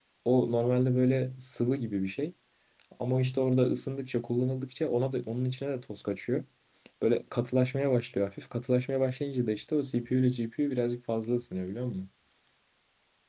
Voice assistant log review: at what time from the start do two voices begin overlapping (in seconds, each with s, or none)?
none